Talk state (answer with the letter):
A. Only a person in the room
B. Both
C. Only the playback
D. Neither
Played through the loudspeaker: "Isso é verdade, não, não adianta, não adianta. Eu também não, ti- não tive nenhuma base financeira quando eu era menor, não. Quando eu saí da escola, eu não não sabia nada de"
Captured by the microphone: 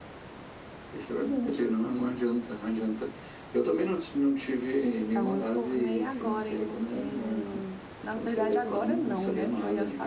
B